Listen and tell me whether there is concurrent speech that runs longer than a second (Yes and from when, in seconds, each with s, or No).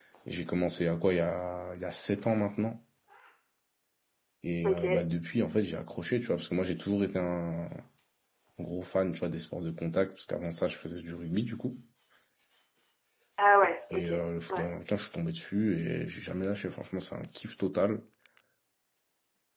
No